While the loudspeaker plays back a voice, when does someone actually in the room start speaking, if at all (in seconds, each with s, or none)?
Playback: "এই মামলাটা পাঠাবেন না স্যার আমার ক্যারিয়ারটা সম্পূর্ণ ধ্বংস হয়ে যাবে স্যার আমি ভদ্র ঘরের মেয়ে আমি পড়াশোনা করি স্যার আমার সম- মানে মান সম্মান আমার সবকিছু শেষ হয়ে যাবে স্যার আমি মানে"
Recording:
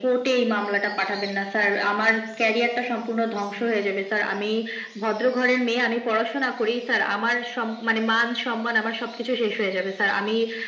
none